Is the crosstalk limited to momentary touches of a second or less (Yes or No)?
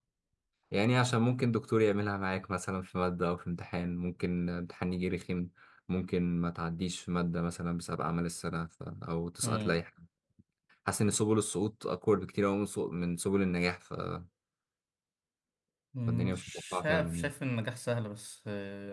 No